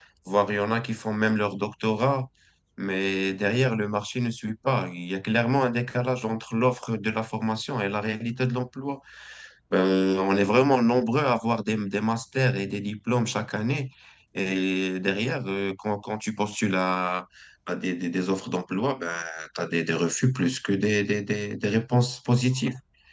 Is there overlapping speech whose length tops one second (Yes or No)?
No